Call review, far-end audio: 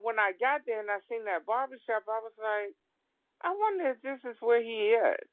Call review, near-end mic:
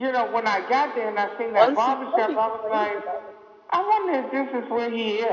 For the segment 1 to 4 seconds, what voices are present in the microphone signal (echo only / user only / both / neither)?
both